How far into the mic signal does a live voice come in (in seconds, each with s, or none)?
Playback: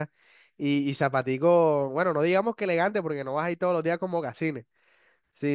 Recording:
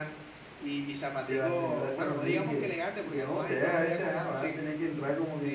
1.2 s